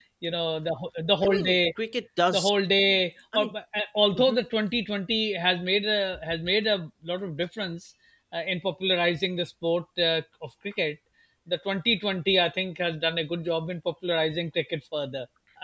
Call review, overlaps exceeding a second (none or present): none